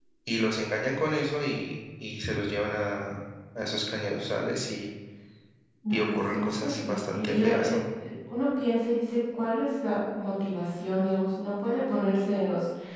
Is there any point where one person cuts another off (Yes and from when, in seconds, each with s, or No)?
Yes, from 5.9 s